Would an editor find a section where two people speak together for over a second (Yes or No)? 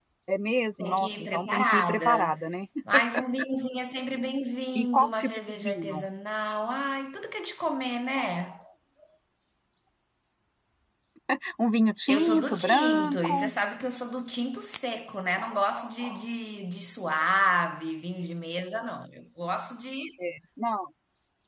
Yes